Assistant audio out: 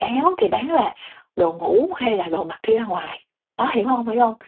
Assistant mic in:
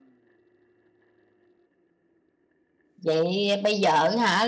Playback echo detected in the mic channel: No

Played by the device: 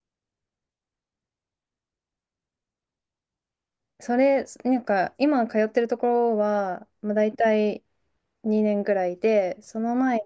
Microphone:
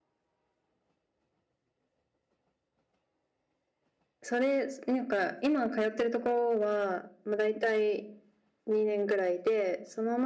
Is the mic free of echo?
No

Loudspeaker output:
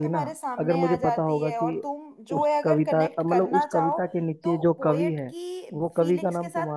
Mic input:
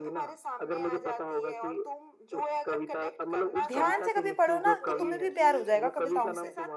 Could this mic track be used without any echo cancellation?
No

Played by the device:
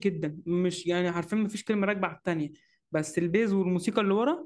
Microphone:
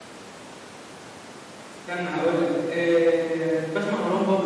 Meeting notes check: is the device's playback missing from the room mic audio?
Yes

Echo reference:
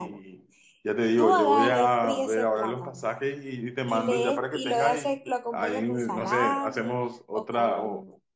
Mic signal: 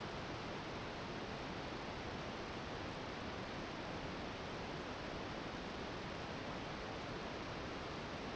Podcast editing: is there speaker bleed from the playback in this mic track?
No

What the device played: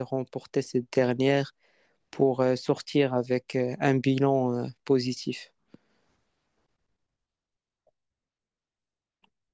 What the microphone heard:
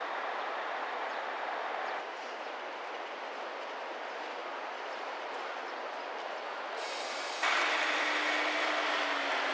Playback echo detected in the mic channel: No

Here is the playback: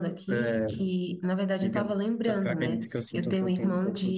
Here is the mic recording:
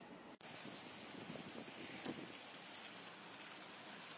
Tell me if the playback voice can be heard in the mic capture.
No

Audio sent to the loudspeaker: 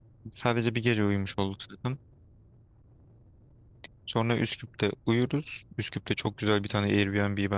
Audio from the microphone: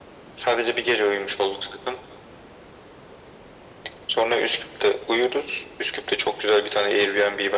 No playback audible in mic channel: No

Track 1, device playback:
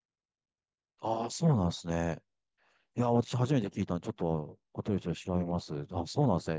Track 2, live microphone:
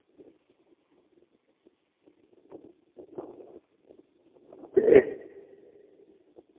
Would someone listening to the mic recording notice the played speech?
No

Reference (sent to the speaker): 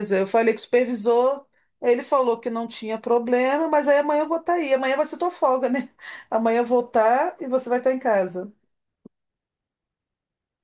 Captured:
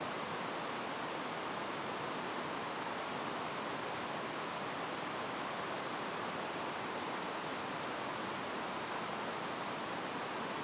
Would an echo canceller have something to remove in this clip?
No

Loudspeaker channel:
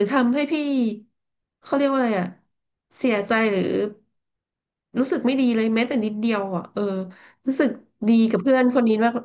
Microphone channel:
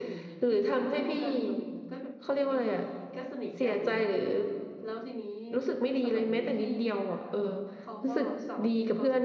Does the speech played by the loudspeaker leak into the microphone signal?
Yes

